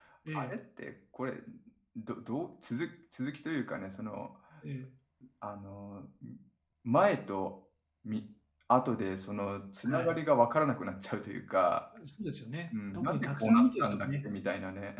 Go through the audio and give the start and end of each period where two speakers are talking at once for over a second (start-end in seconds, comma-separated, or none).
12.9-14.2